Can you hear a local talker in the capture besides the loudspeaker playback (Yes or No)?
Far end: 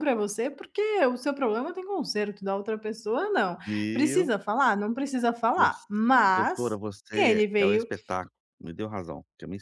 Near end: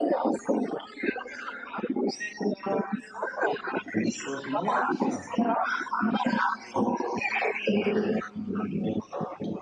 Yes